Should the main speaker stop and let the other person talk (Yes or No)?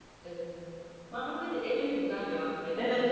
Yes